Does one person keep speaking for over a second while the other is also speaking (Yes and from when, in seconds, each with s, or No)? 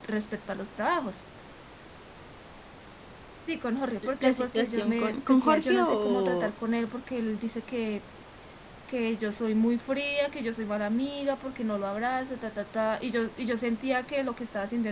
Yes, from 4.2 s